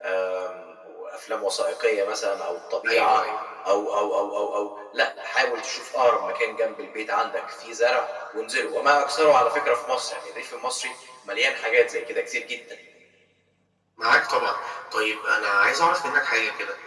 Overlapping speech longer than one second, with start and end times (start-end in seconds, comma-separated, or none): none